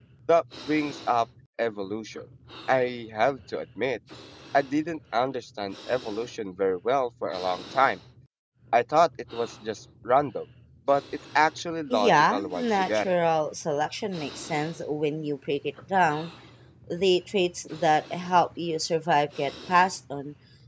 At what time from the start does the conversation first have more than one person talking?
12 s

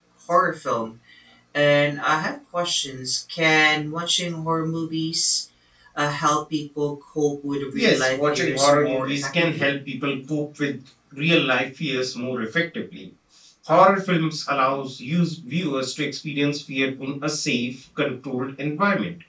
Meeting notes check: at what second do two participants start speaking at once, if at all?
8 s

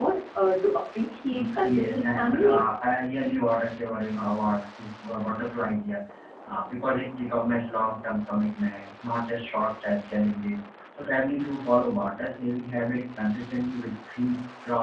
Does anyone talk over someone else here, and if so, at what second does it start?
1 s

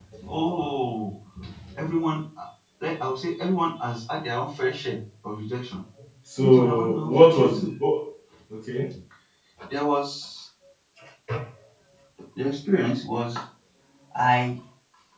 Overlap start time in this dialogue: 6 s

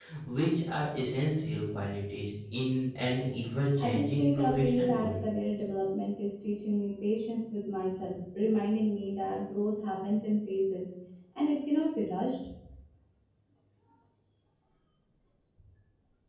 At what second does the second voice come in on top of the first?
4 s

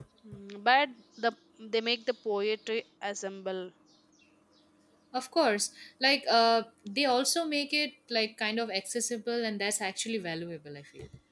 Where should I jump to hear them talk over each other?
none

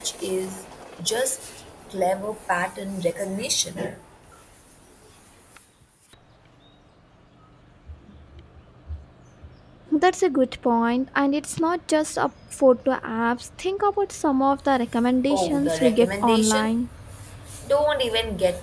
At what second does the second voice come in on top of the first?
15 s

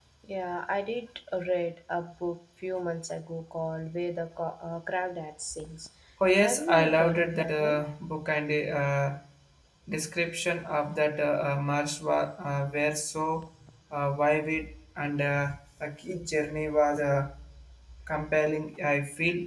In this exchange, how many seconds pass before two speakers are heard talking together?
6 s

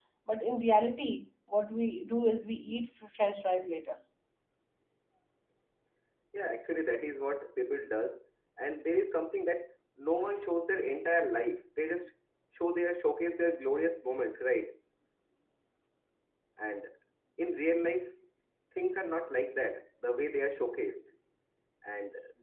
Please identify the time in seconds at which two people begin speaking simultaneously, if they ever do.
none

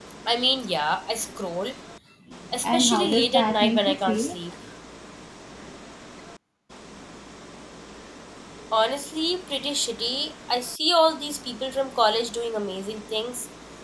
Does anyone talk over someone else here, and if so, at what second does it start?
3 s

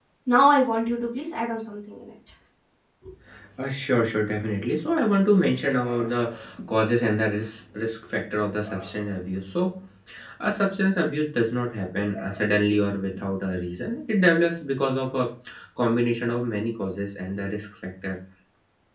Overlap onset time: none

